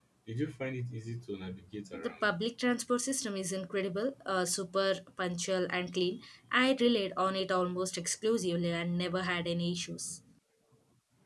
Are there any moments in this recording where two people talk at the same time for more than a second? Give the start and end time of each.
none

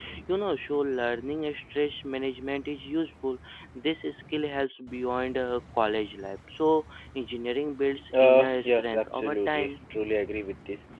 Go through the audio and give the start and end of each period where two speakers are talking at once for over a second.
8.1-9.7

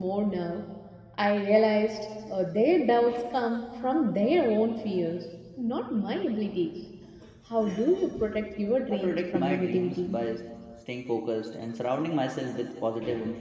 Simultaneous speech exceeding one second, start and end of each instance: 8.9-10.2

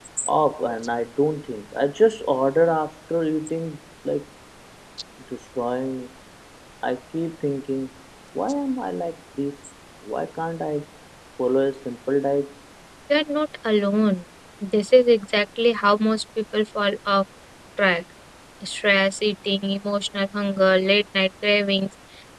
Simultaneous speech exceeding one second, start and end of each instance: none

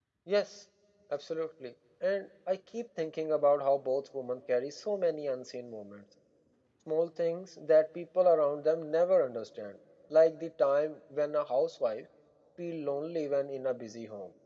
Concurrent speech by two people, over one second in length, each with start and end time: none

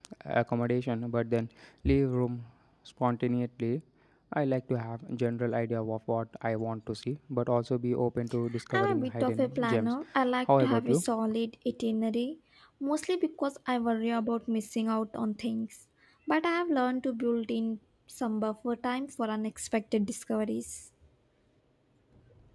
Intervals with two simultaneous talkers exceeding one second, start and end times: 8.7-9.9

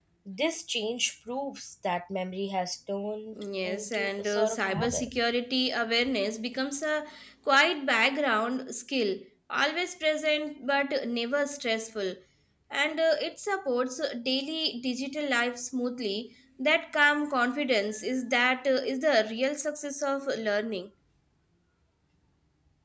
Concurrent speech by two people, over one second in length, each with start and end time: 3.6-5.1

